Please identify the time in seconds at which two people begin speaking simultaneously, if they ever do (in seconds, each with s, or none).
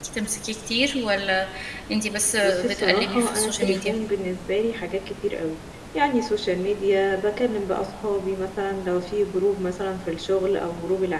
2.4 s